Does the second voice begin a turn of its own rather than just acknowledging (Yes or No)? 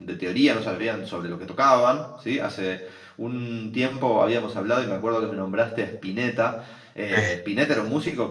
No